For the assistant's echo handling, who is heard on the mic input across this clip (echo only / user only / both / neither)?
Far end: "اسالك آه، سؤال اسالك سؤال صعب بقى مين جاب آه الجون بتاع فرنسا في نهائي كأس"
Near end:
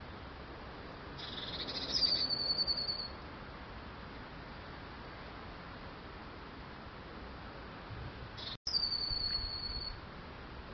neither